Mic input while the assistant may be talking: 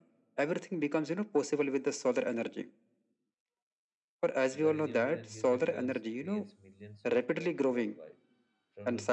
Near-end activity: present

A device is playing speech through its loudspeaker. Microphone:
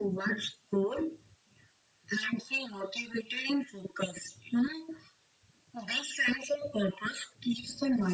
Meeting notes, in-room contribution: none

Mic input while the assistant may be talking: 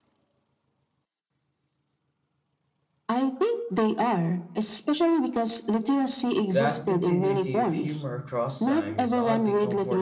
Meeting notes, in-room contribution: present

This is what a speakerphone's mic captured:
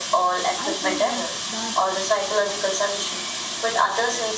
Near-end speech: present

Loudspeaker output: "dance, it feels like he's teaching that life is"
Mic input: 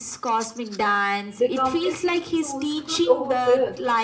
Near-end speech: present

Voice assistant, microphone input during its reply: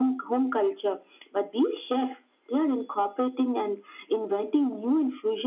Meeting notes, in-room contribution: none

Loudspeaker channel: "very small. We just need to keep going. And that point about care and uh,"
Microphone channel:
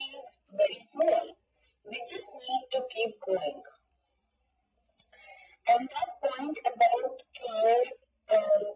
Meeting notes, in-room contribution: none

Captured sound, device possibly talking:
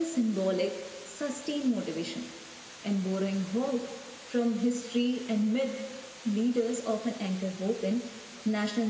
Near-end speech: none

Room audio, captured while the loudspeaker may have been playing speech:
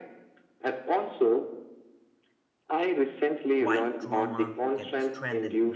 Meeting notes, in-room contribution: present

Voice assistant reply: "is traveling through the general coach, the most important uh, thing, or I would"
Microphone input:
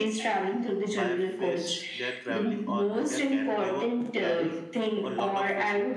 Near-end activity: present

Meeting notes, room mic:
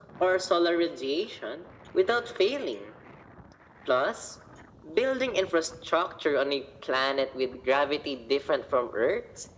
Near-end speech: none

